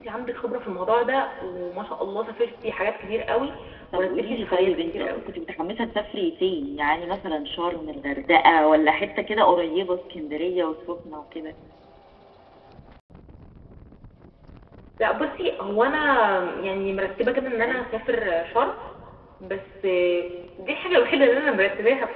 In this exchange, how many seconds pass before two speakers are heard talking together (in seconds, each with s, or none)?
4.0 s